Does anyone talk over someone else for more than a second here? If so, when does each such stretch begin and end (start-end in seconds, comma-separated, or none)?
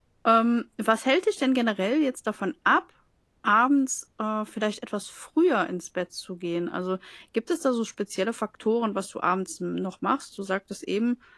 none